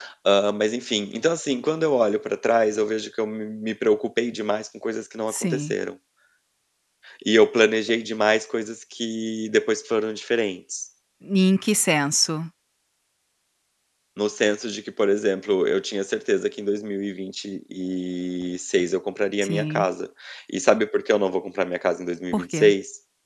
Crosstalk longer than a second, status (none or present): none